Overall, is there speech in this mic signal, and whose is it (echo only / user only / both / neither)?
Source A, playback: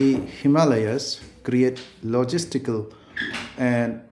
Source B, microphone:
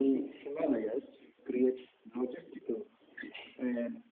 echo only